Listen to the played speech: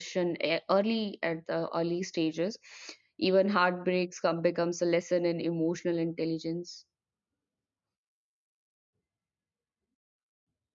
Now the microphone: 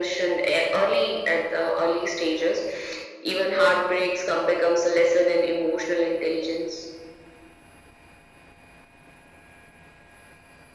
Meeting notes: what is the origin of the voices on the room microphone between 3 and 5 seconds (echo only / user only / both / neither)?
echo only